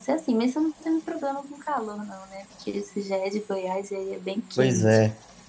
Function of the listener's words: taking over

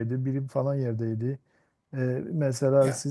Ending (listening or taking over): listening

